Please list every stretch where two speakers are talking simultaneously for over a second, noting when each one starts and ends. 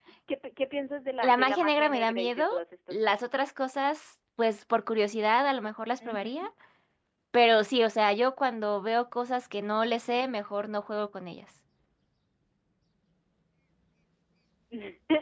1.2-2.4

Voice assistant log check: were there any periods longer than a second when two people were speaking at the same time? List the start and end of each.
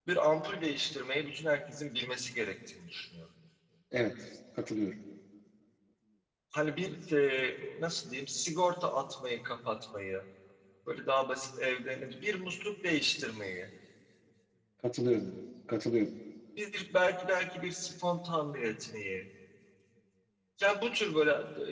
none

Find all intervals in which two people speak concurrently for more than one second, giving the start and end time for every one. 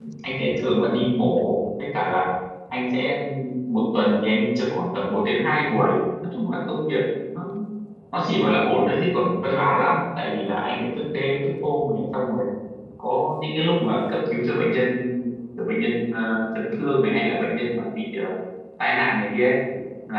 none

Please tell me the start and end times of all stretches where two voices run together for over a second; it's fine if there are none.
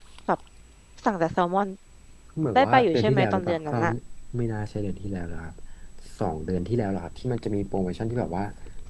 2.5-3.8

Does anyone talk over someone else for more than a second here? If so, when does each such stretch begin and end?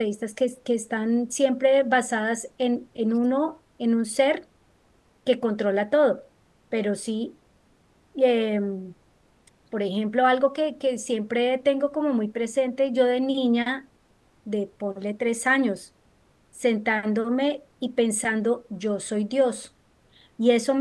none

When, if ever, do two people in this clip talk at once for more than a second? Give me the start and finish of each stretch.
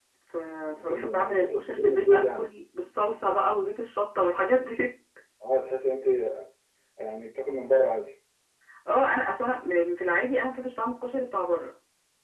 0.9-2.5

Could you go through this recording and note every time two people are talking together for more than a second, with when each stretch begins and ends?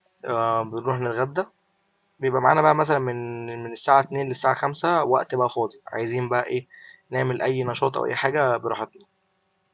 none

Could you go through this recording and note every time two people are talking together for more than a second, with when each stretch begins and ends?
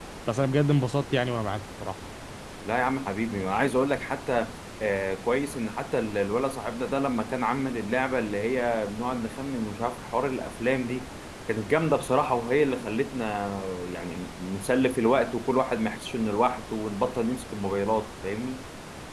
none

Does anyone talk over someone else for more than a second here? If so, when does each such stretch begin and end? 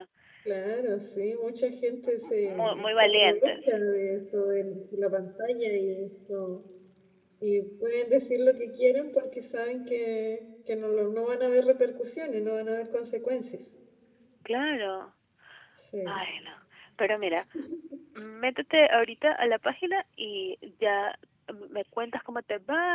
2.5-3.8

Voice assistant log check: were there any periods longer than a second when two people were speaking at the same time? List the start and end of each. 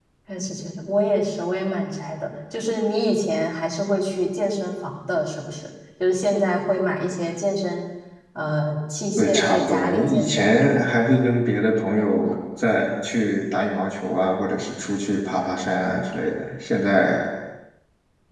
9.2-10.5

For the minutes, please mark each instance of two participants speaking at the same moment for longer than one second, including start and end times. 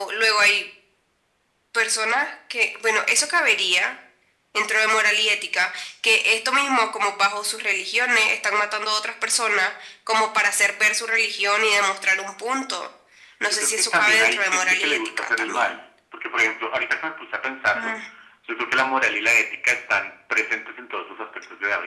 13.5-15.8

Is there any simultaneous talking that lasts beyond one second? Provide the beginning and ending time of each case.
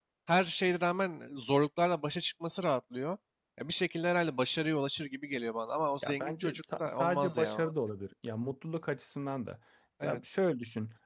6.0-7.6

